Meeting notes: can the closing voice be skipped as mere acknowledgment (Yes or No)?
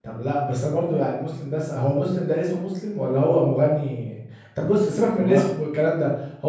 Yes